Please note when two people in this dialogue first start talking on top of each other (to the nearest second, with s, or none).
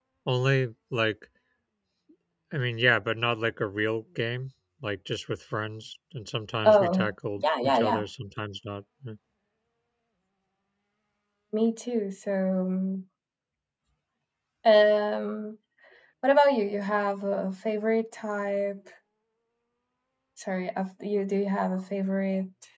7 s